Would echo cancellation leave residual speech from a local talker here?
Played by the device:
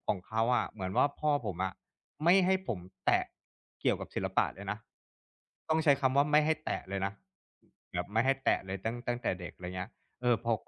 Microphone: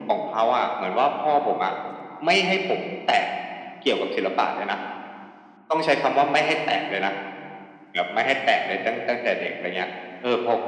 No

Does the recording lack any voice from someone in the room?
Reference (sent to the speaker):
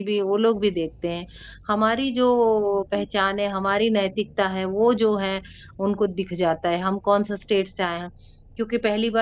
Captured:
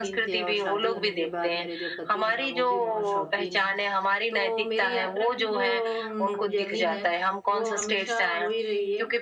No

